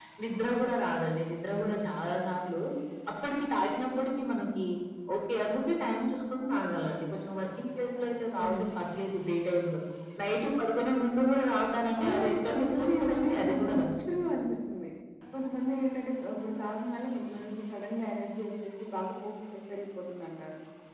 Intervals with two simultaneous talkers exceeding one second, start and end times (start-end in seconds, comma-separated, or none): 12.0-13.9